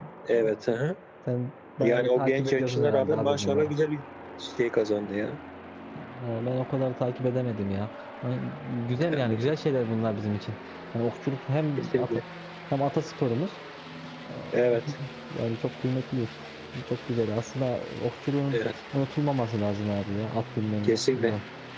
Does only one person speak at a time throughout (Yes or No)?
No